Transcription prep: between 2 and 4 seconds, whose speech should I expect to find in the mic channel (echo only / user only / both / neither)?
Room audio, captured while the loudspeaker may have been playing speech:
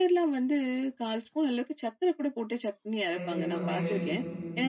both